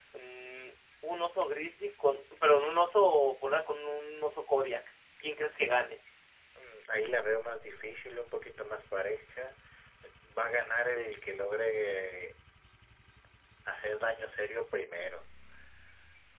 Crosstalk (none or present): none